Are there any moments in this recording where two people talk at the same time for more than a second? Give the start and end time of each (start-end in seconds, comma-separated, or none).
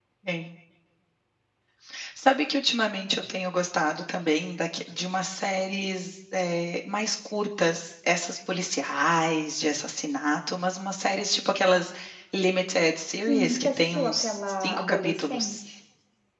13.3-15.6